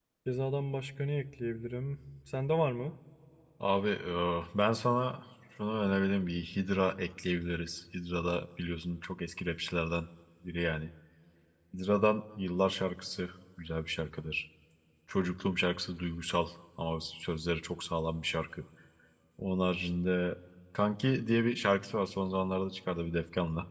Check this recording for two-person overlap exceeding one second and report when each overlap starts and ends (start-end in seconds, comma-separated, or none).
none